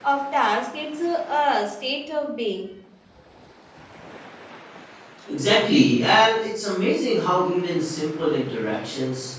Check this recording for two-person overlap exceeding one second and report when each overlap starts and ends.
none

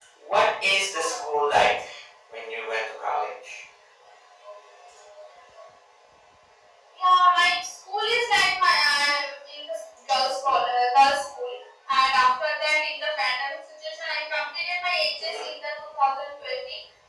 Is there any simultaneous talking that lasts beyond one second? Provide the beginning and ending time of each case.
none

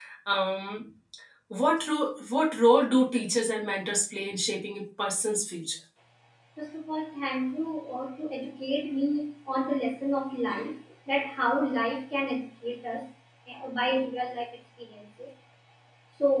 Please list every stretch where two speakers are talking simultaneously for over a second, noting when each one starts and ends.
none

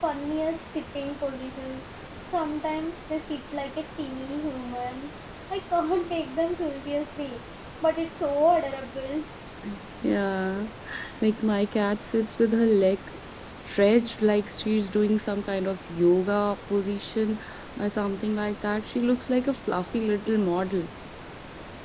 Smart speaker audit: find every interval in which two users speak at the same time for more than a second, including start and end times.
none

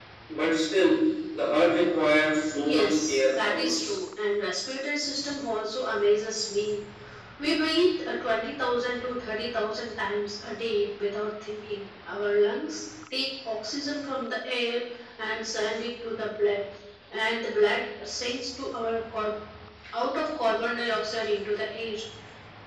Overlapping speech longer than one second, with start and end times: 2.7-4.0

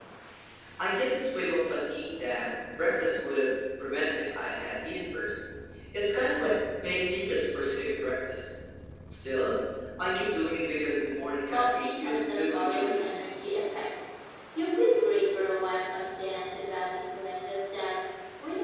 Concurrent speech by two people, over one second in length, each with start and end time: 11.5-13.1

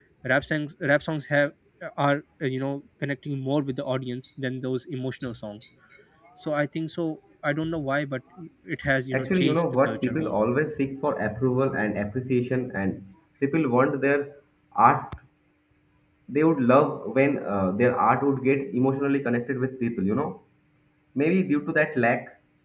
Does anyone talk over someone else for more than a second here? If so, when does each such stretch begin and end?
9.1-10.4

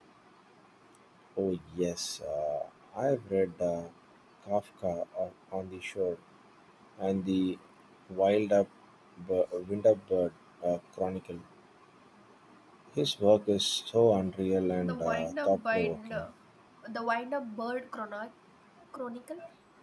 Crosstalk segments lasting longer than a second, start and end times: 14.8-16.2

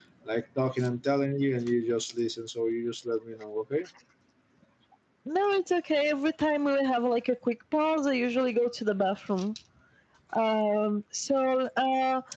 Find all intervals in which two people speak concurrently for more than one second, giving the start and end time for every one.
none

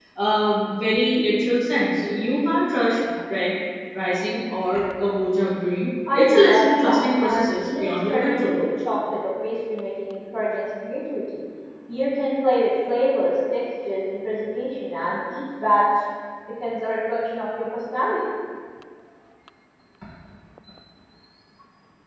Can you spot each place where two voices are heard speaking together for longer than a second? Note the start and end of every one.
6.1-8.6

